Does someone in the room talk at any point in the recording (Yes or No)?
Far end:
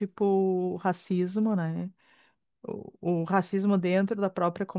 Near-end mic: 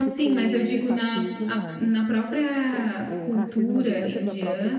Yes